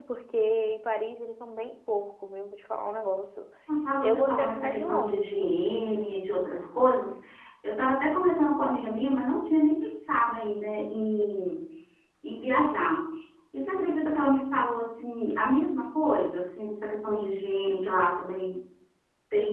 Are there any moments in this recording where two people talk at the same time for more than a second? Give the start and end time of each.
4.0-5.5

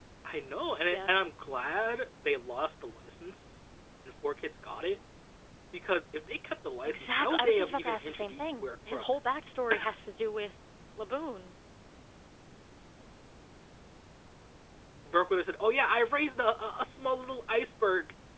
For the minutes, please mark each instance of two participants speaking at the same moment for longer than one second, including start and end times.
6.8-9.0

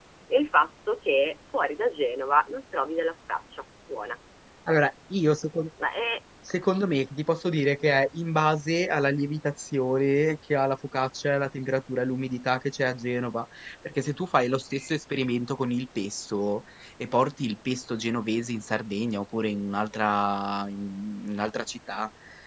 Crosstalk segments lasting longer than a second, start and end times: none

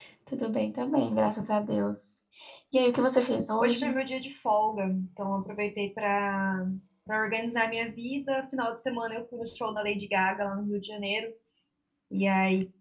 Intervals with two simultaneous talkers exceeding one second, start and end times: none

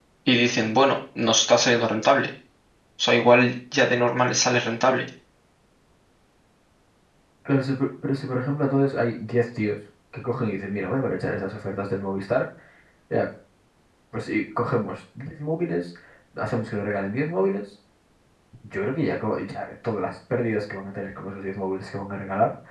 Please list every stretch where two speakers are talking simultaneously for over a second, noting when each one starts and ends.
none

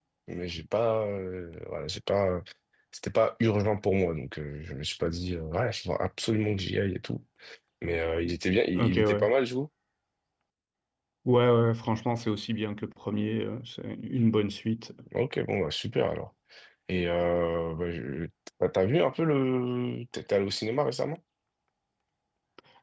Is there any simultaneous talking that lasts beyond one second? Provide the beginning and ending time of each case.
none

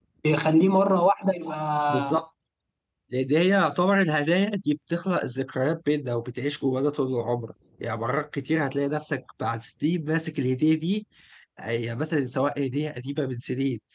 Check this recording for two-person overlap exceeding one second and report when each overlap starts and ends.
none

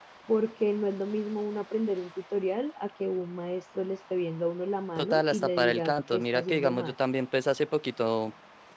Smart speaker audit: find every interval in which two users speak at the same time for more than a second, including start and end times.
5.0-6.9

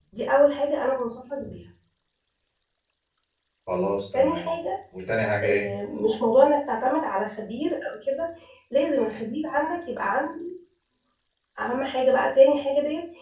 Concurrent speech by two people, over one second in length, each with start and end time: none

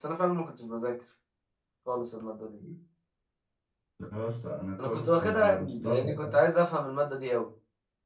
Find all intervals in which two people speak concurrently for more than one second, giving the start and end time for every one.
4.8-6.4

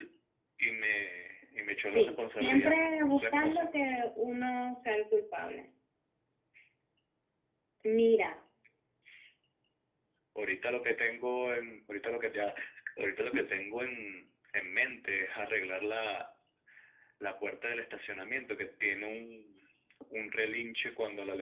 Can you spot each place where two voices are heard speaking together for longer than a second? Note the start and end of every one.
1.9-3.7

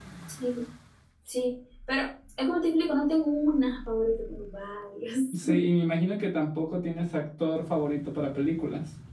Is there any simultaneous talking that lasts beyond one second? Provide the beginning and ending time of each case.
none

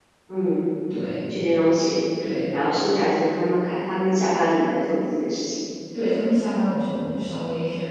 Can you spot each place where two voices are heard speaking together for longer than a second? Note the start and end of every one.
none

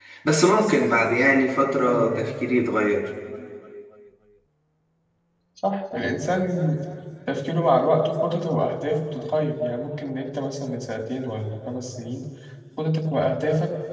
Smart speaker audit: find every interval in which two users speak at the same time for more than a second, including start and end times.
none

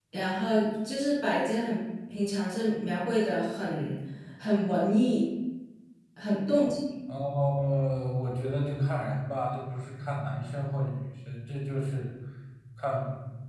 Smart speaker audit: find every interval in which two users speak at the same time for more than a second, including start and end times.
none

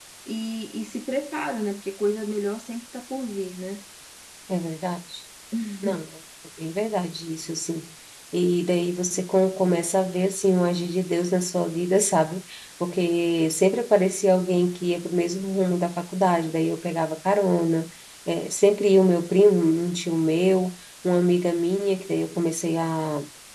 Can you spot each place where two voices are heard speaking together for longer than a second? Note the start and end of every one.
none

